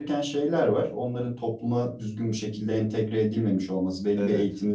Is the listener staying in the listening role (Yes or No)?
Yes